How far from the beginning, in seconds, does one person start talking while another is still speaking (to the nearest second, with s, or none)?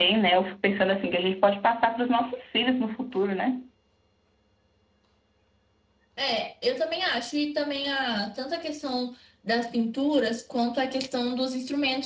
none